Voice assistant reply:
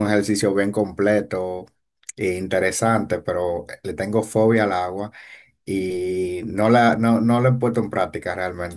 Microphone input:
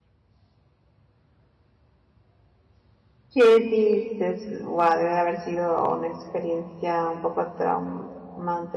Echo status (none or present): none